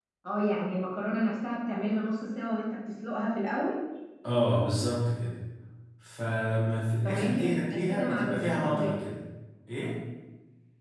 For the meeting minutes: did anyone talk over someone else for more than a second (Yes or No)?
Yes